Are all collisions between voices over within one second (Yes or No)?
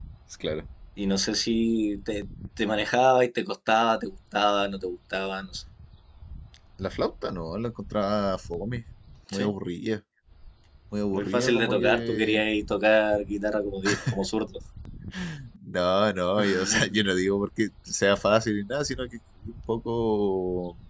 No